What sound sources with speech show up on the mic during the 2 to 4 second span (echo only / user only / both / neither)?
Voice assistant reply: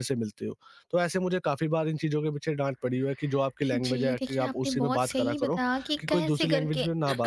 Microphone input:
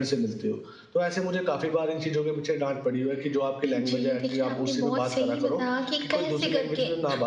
echo only